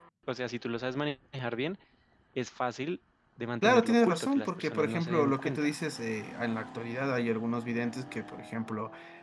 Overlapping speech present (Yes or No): Yes